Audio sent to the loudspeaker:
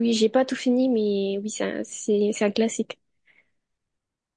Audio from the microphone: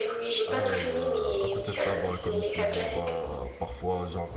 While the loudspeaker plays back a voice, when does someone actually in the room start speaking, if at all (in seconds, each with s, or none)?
0.5 s